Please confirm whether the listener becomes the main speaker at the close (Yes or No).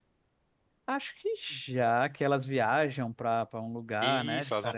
Yes